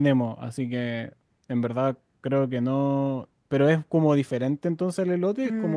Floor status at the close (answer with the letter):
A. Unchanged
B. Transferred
B